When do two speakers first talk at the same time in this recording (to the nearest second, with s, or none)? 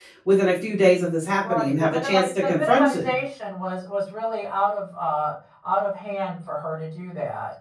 1 s